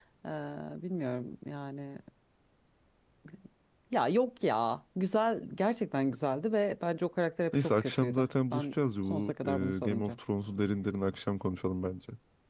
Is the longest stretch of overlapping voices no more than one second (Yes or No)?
No